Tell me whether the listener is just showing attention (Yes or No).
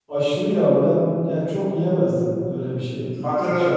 No